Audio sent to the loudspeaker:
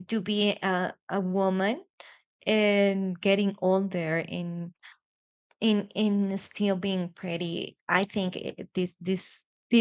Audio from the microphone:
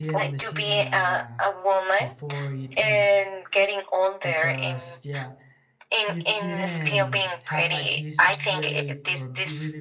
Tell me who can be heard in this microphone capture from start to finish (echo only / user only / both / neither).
both